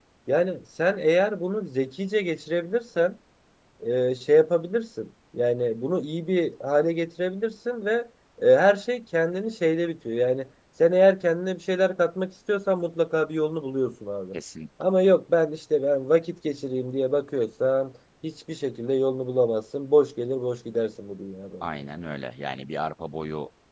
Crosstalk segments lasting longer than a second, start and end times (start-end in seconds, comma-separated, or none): none